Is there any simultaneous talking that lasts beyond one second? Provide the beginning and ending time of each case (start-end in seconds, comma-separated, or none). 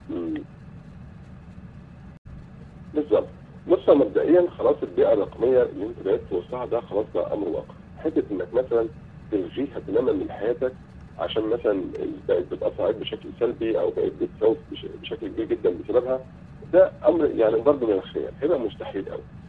none